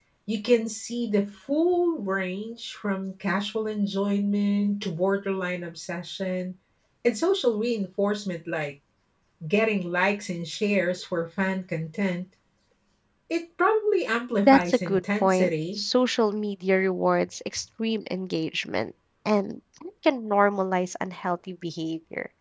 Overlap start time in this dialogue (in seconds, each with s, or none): 14.4 s